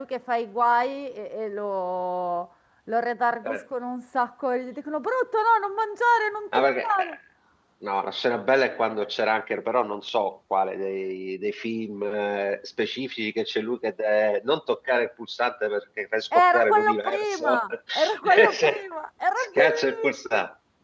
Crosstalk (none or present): present